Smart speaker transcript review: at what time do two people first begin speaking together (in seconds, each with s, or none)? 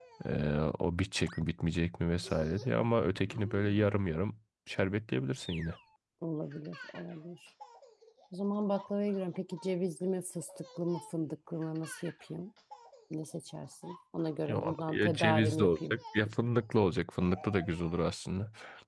14.5 s